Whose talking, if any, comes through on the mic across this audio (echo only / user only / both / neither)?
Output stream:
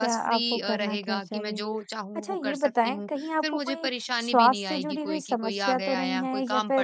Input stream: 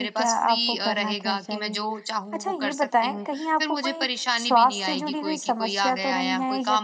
echo only